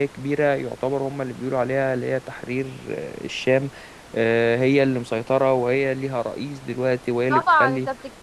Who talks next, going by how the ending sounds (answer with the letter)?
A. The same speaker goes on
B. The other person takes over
B